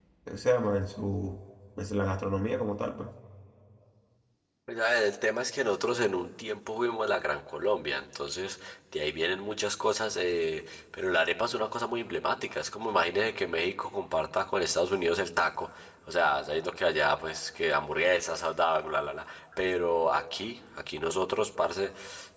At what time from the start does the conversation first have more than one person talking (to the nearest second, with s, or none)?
none